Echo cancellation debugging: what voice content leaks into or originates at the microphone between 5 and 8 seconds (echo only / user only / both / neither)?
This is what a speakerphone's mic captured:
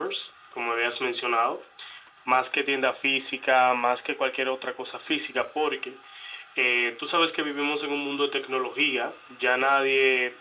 echo only